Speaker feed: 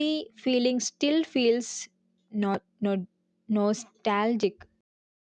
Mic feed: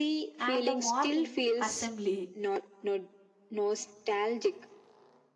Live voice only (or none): and the morning assembly,